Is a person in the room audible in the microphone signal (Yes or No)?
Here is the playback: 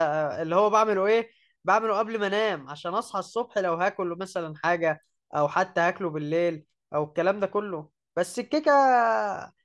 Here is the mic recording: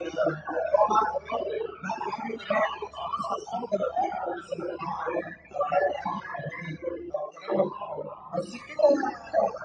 No